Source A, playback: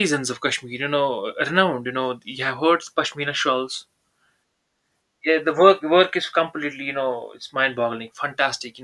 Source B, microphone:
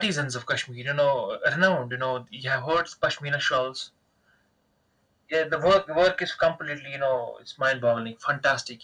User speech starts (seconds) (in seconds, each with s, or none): none